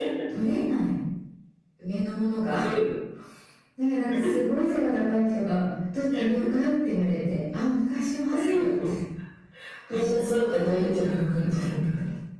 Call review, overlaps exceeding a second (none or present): present